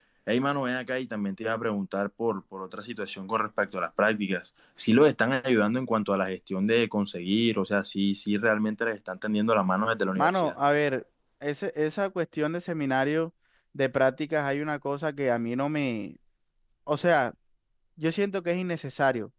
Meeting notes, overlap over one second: none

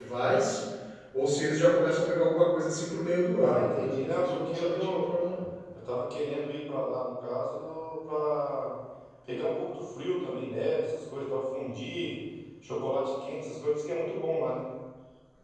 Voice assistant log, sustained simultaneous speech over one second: present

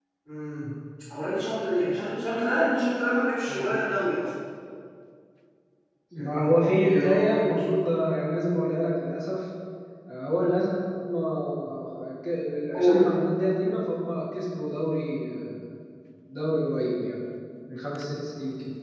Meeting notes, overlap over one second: present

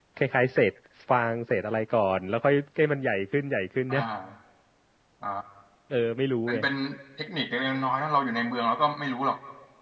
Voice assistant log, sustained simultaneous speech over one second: none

